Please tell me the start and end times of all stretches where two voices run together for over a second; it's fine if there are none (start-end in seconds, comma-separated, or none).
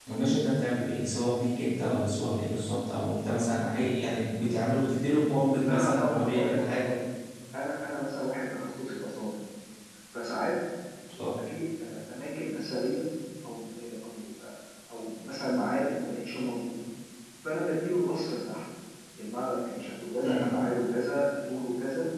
5.7-6.9